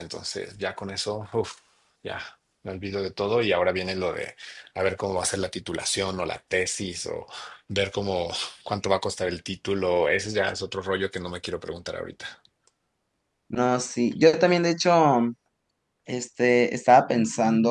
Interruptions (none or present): none